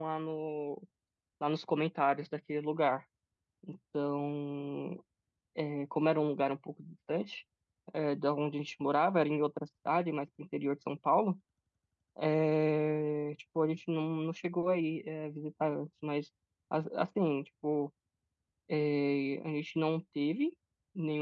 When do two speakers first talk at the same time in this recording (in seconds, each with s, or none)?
none